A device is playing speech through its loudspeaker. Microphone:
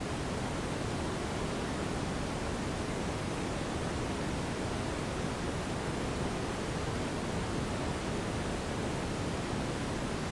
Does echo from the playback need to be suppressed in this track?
No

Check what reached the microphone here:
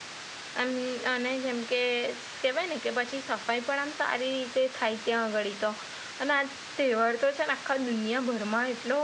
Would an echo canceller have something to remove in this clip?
No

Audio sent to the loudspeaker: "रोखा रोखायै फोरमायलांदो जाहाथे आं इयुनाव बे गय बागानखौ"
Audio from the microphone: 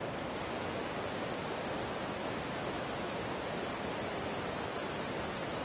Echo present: No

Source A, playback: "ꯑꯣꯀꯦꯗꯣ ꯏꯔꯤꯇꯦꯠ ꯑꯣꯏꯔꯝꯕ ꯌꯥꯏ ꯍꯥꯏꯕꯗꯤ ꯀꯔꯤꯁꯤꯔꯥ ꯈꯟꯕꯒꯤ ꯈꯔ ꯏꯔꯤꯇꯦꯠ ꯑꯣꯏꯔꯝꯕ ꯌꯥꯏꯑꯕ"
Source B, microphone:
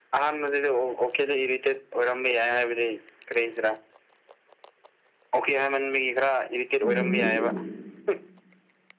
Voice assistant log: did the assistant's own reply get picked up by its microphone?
Yes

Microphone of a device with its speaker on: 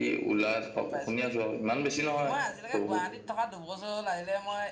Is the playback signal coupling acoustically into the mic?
Yes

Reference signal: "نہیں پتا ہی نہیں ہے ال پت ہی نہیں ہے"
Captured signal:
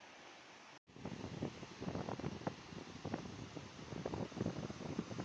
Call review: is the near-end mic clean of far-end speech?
Yes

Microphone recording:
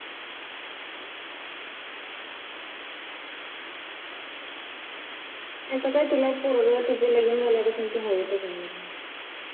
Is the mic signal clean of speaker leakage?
Yes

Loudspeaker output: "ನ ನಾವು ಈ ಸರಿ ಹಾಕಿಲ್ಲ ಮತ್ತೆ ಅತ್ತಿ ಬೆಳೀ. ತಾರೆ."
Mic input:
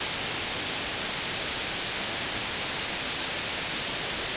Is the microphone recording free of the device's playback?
Yes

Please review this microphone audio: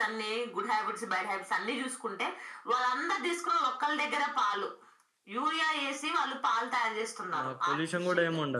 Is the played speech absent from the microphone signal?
No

